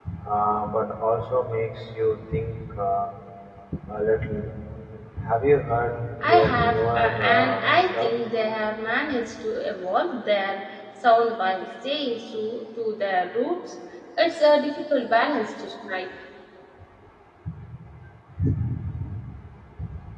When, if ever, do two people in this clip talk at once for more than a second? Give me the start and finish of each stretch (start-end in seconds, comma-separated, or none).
6.3-8.1